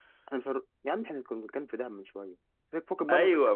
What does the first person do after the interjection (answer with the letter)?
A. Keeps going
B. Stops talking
B